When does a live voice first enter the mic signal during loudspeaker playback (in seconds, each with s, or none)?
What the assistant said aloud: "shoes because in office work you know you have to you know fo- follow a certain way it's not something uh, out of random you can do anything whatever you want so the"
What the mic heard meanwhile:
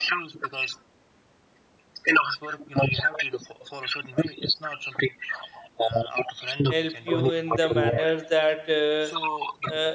6.7 s